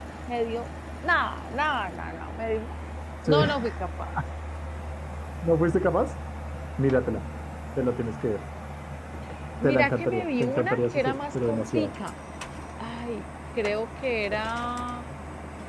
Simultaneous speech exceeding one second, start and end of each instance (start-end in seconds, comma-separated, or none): 9.7-11.9